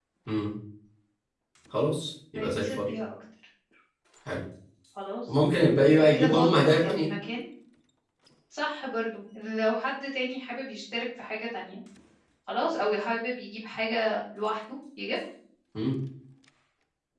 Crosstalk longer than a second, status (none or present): present